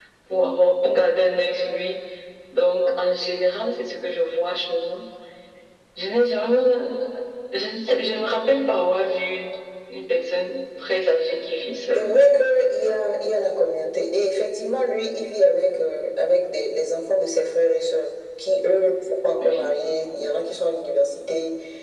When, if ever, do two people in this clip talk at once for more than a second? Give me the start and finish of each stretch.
none

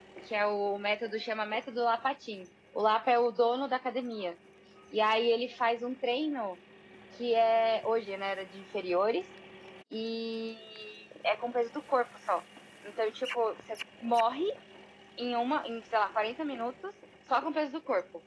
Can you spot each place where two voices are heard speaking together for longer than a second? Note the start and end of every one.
none

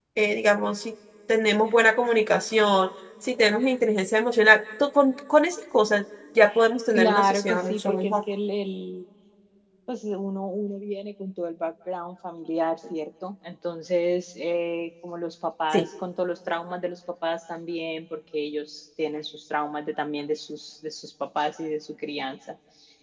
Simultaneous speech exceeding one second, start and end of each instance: 6.9-8.1

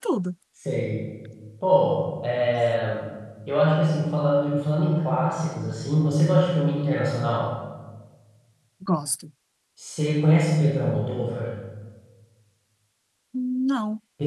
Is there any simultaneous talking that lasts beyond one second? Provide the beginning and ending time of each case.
none

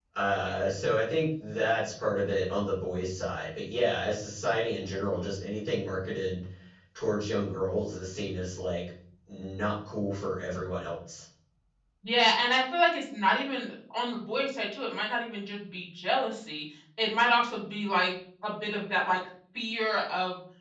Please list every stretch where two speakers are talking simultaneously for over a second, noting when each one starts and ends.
none

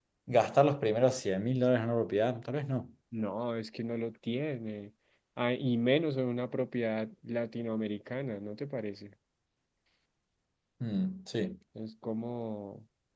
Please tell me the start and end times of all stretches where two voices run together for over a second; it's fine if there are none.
none

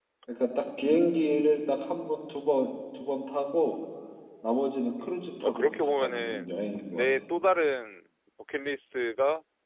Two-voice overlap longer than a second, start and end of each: 5.0-6.5

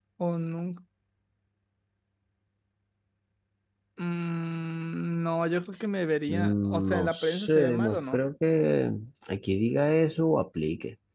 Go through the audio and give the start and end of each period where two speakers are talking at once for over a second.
6.3-8.2

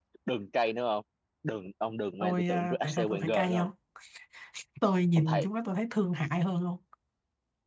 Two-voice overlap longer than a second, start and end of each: 2.2-3.7

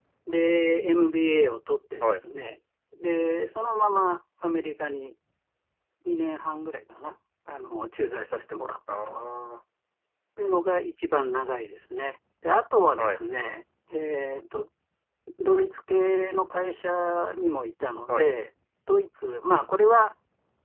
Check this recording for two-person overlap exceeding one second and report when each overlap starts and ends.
none

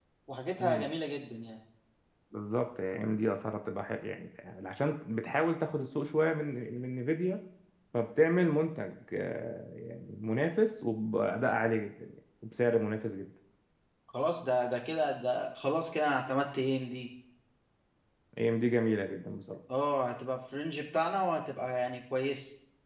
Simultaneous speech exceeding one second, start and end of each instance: none

